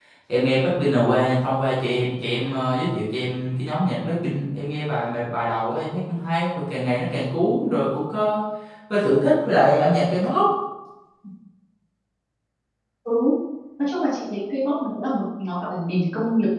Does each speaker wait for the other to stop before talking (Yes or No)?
Yes